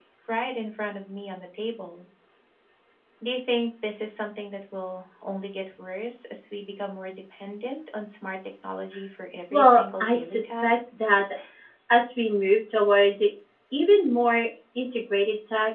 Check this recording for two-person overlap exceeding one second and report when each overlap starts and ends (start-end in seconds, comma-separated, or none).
9.5-10.8